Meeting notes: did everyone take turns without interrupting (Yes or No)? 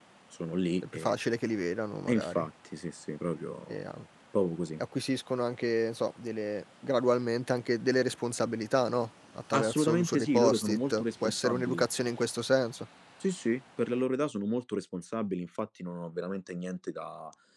No